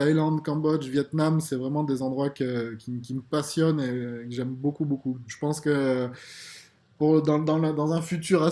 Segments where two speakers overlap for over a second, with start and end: none

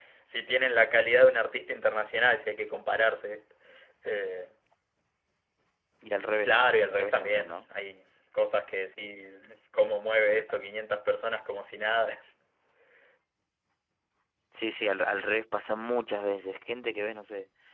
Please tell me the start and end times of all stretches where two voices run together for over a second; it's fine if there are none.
6.4-7.7

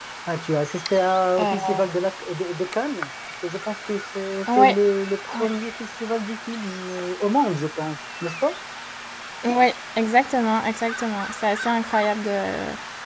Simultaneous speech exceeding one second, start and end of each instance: none

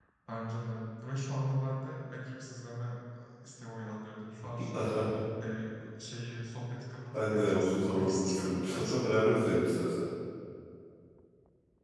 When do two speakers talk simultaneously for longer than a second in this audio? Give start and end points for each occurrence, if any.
7.1-9.3

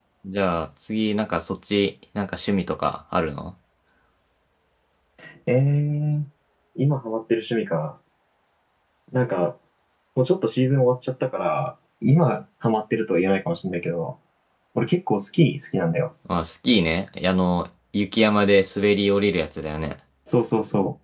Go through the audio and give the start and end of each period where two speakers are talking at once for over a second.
none

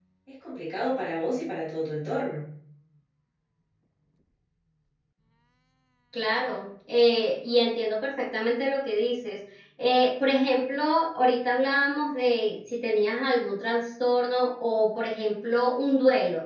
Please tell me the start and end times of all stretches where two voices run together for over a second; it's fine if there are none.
none

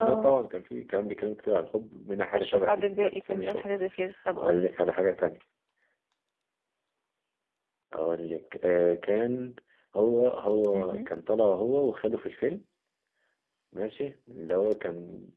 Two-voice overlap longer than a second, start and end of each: 2.4-3.6

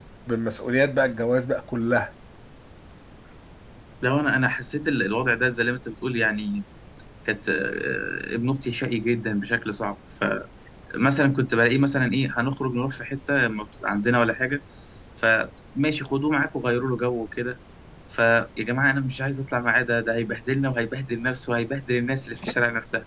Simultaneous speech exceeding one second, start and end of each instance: none

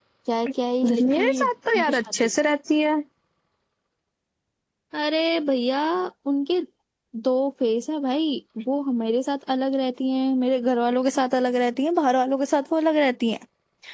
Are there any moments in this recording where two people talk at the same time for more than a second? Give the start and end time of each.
0.9-2.3

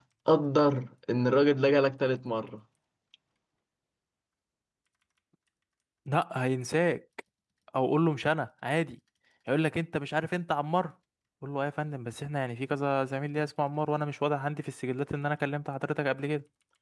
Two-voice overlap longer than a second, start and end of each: none

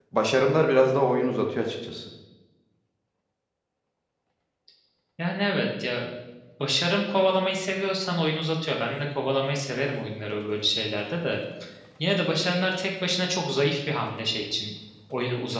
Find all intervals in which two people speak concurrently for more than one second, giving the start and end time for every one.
none

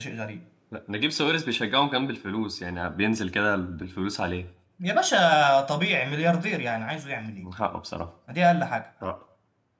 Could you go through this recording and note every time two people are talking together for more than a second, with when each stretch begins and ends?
none

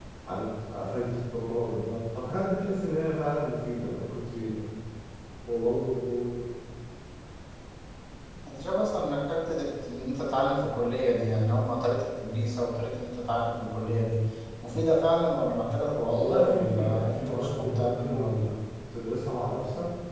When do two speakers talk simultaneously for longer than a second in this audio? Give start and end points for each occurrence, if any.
16.0-18.5

